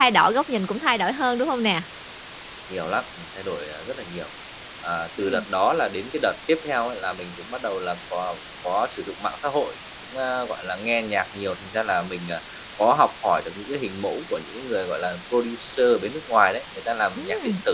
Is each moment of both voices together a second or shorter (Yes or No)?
Yes